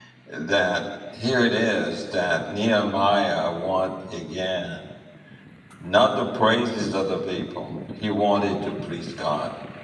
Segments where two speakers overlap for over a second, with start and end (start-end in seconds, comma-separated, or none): none